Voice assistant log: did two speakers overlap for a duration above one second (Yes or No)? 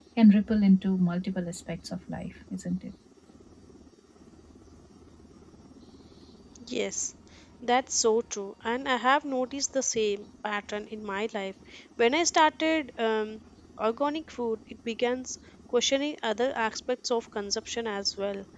No